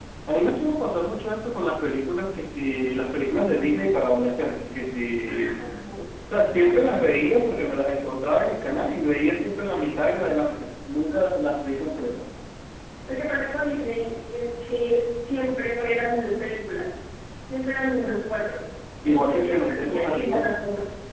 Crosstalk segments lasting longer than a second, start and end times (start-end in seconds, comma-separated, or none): 19.0-20.5